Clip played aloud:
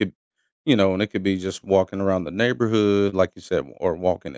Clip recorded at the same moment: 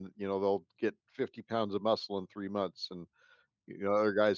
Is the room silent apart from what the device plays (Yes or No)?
No